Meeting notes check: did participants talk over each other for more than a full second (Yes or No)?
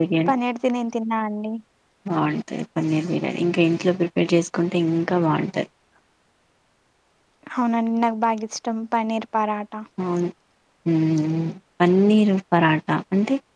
No